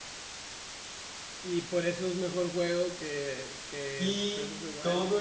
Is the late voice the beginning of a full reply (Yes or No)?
Yes